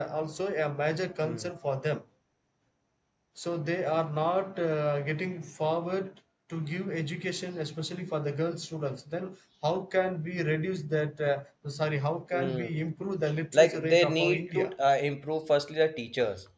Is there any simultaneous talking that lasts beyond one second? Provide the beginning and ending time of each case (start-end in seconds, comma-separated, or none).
13.5-14.7